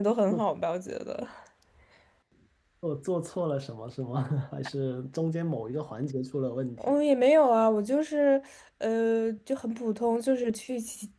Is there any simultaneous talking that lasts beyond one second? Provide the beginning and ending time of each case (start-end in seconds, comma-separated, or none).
none